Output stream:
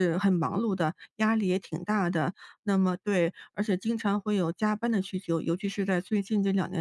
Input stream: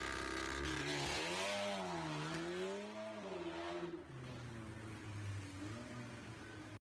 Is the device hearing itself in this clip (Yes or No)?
No